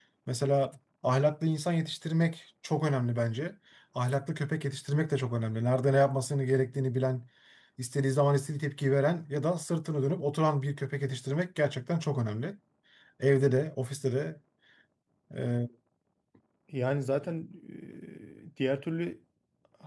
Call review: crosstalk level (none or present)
none